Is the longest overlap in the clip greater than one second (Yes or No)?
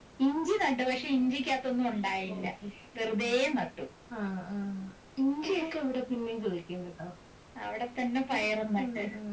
No